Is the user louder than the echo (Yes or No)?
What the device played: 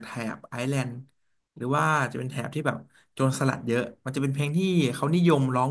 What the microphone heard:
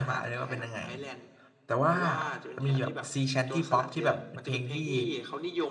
Yes